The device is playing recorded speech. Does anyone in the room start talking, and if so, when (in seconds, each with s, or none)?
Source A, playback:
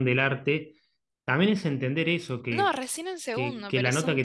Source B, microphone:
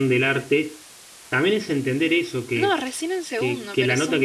none